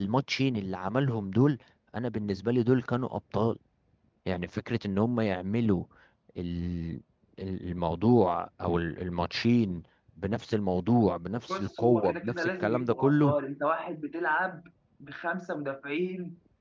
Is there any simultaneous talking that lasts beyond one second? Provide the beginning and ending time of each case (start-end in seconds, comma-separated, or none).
11.5-13.3